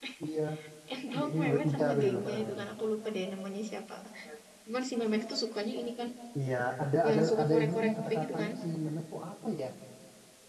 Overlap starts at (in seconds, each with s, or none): 1.2 s